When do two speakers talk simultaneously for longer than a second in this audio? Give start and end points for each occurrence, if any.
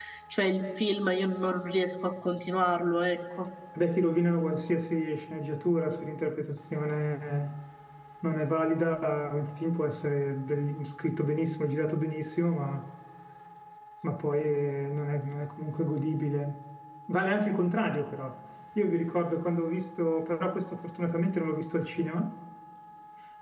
none

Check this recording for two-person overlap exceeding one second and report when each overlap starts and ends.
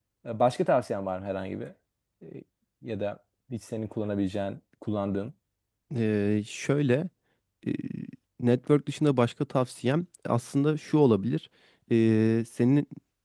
none

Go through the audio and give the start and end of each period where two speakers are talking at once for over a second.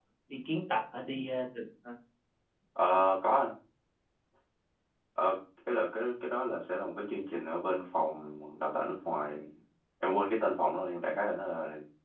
none

